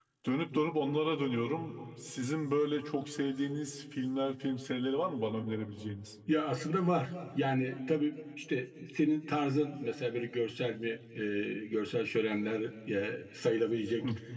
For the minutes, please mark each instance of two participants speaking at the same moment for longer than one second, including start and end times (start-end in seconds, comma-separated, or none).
none